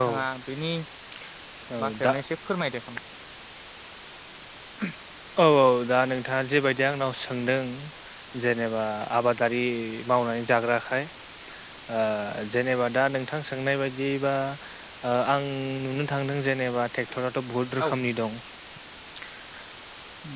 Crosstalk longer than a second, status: none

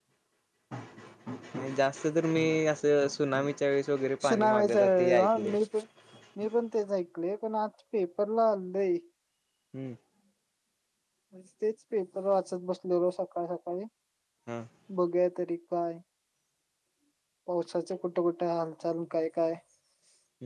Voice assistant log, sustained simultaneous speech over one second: present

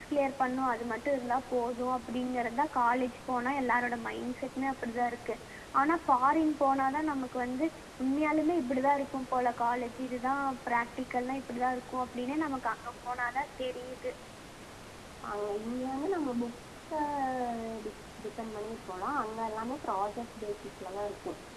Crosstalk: none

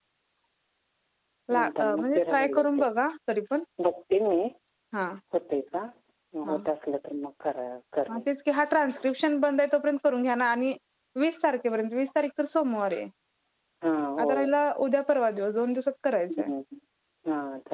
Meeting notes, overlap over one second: present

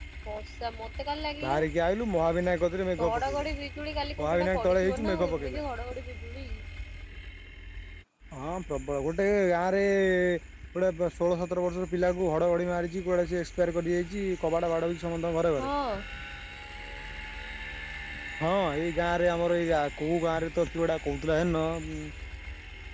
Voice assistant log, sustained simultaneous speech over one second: present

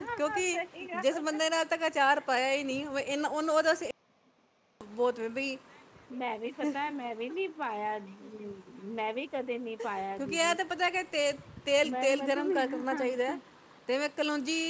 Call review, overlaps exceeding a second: present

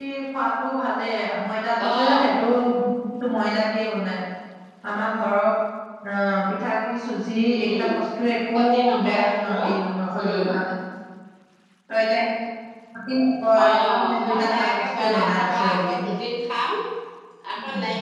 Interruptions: present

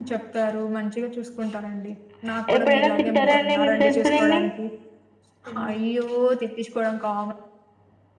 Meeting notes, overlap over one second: present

